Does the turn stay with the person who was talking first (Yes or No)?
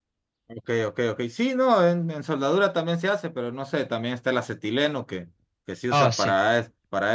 Yes